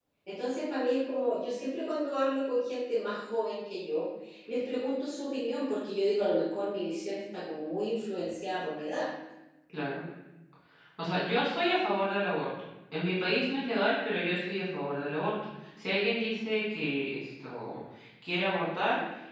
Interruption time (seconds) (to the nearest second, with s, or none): none